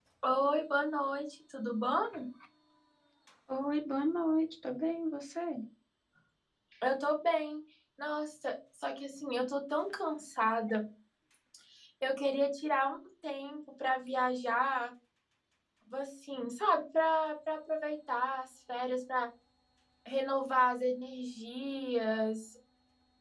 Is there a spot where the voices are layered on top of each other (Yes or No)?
No